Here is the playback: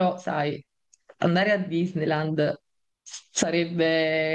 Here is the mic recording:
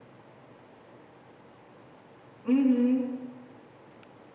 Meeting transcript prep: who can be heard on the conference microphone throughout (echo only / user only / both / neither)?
user only